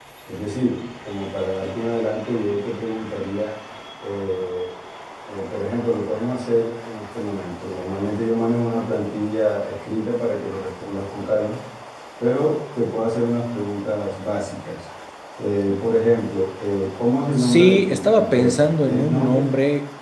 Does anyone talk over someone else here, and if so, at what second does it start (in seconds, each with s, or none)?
17.4 s